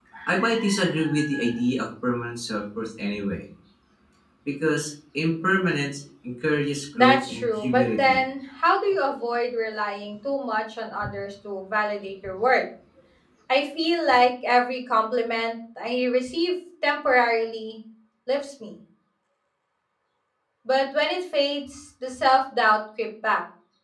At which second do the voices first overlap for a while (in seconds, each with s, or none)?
6.9 s